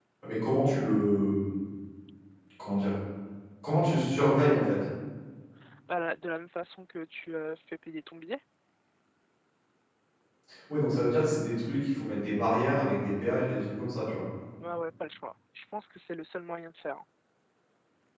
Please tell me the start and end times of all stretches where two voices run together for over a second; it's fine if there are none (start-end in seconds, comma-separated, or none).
none